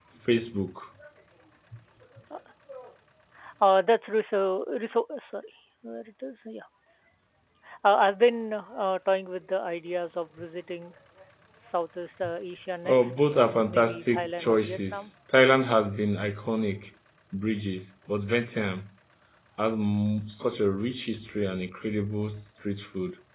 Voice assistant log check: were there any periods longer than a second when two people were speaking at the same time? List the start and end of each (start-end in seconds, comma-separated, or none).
12.9-15.1